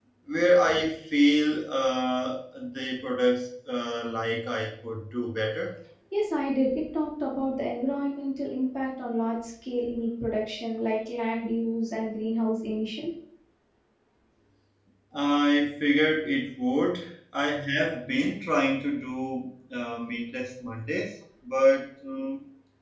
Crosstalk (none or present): none